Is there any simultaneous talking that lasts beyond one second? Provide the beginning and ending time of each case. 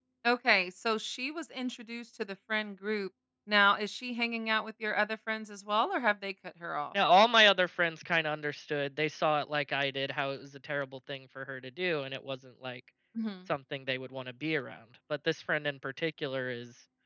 none

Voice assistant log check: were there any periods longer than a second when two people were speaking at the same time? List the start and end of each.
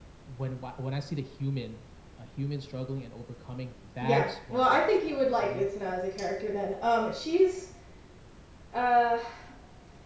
4.0-5.7

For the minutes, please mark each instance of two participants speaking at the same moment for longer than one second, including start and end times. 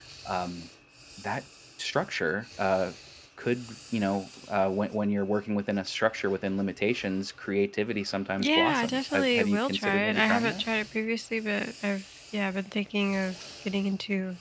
8.4-10.6

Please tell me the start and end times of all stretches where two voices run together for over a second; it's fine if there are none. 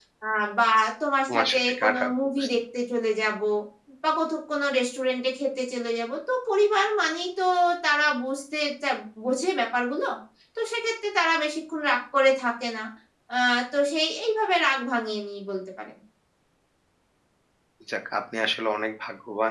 1.3-2.5

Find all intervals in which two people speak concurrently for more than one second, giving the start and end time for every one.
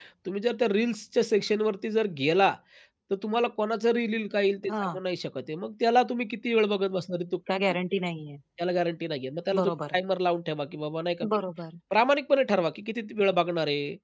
none

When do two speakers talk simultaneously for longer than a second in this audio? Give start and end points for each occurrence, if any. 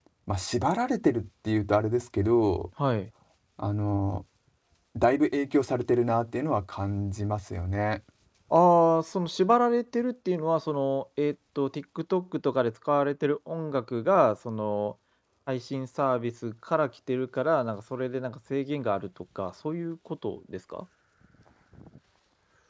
none

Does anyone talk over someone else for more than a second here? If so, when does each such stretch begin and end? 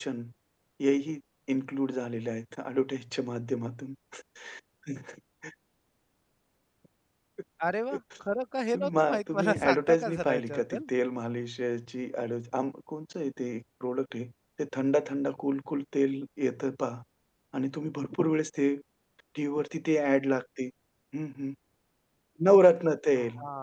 9.0-10.9

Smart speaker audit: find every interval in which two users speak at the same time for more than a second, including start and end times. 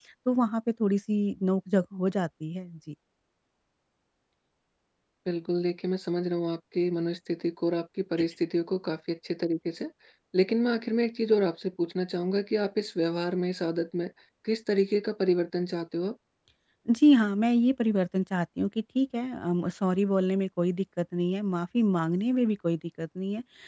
none

